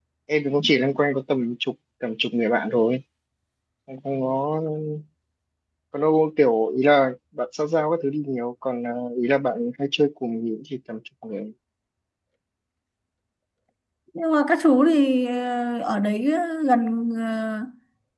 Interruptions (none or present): none